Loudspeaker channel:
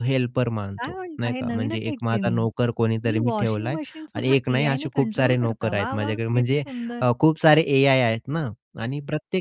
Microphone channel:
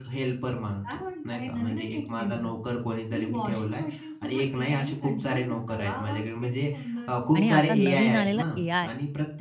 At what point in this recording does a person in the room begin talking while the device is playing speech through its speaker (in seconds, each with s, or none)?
7.3 s